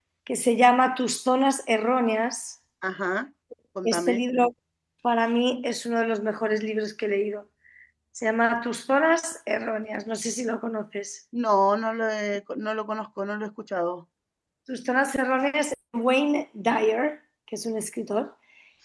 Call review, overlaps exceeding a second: none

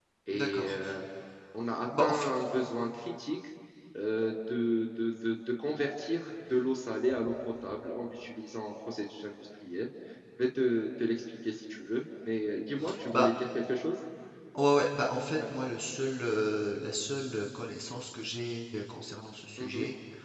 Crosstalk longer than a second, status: none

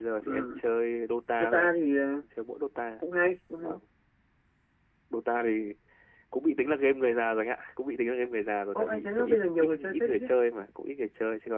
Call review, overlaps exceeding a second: present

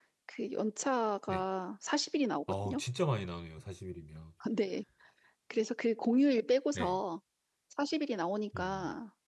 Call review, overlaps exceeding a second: none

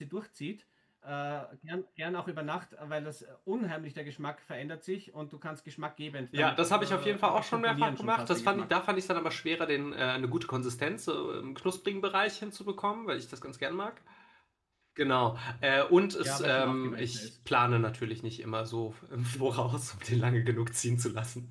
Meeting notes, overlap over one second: present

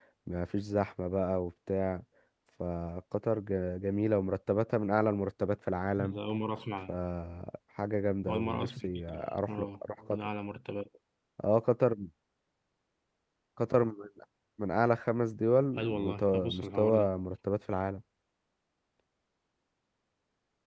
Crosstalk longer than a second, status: present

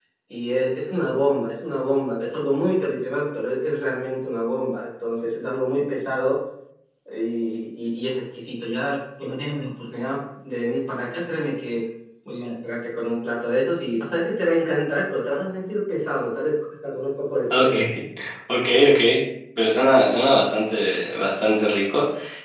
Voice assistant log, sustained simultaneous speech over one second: none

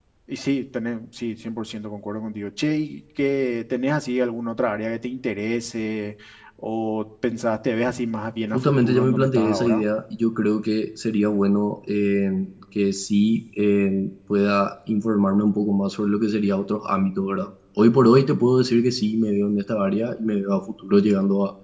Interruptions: present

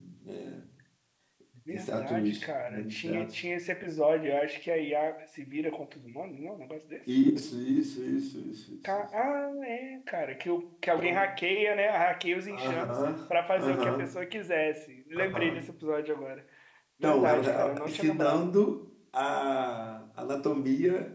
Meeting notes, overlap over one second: present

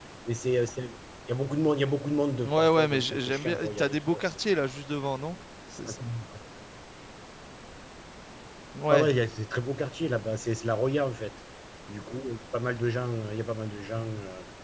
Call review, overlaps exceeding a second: present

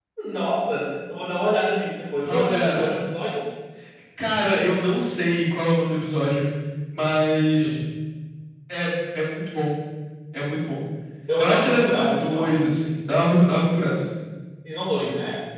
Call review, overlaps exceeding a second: present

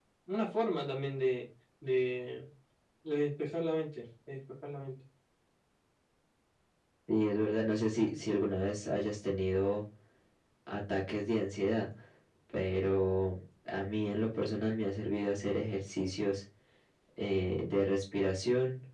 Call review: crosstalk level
none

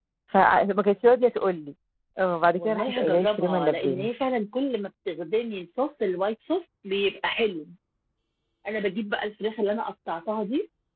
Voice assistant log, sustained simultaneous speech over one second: present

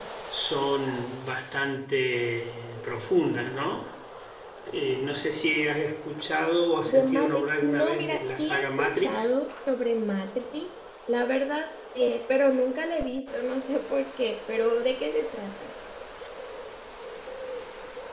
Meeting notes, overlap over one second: present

